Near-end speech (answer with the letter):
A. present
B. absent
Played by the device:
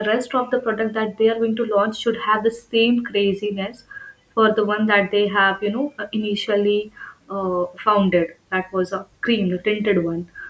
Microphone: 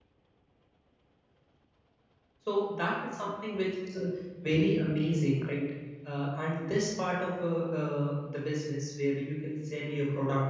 A